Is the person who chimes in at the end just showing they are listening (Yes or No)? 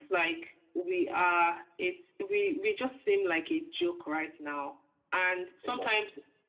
Yes